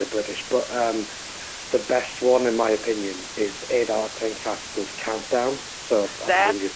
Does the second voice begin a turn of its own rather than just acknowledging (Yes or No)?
Yes